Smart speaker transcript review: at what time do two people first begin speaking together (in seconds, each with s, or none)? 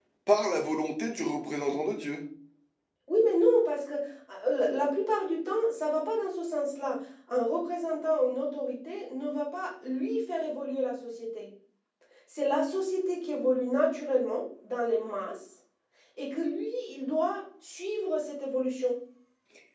none